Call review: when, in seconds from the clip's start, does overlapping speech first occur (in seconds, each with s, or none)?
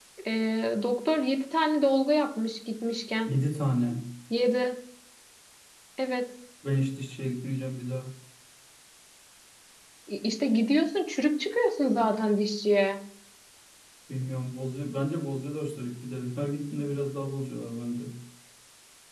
none